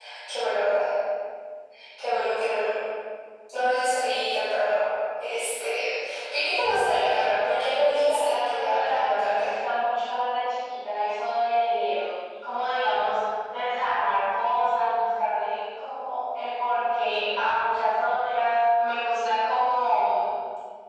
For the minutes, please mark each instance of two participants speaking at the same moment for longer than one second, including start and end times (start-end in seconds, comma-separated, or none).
6.9-9.5